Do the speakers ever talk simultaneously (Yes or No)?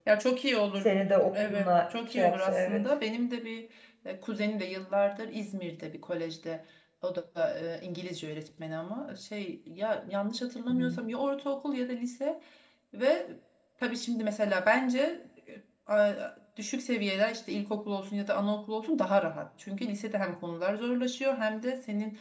Yes